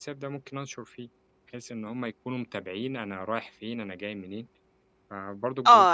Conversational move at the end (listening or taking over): taking over